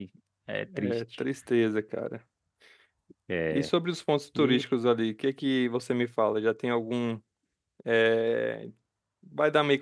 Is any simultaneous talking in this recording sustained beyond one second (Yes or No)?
No